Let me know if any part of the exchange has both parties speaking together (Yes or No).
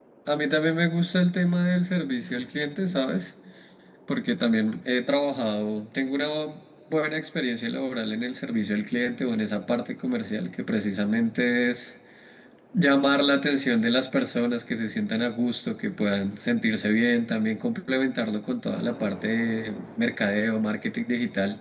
No